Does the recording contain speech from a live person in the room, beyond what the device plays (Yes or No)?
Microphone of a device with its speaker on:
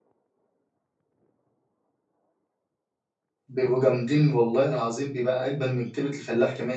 Yes